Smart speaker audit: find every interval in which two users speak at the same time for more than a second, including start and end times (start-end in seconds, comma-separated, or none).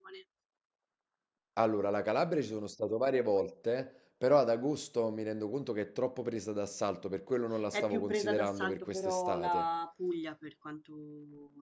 7.7-9.7